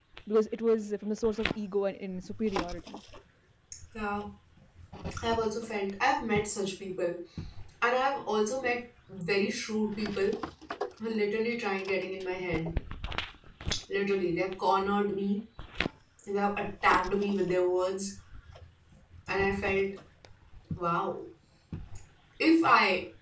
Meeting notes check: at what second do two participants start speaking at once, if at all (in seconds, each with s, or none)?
none